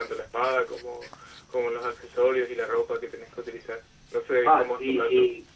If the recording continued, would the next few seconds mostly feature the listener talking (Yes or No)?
Yes